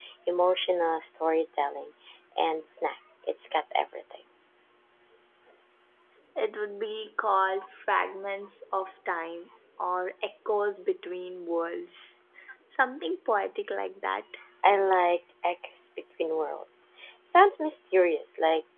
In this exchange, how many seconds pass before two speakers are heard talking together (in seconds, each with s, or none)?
none